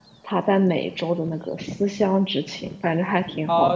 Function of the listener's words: taking over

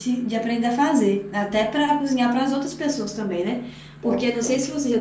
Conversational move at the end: listening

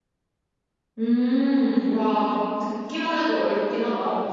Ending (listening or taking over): taking over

